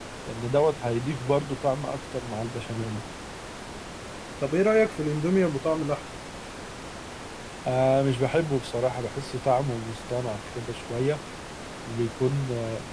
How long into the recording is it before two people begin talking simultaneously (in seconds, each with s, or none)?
none